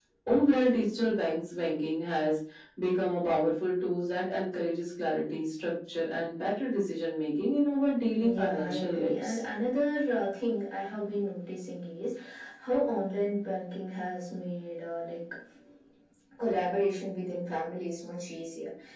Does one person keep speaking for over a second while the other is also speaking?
Yes, from 8.2 s

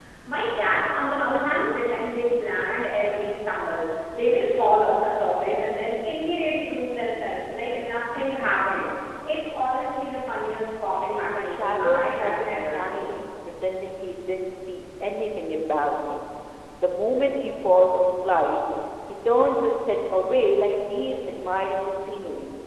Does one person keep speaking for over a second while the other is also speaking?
Yes, from 11.4 s

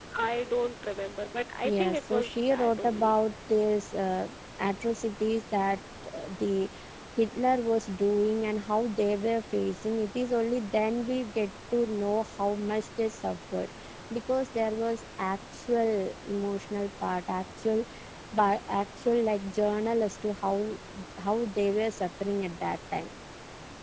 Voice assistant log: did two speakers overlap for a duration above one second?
Yes, from 1.6 s

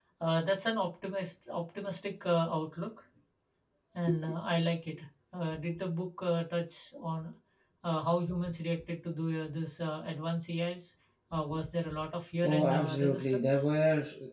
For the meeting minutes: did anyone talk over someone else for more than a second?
Yes, from 12.4 s

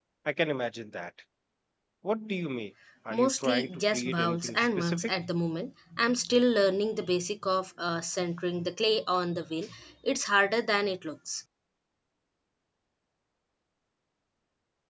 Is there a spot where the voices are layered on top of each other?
Yes, from 3.1 s

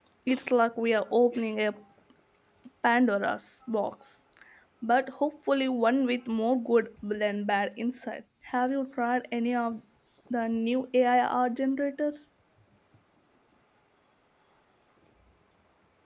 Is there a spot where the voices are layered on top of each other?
No

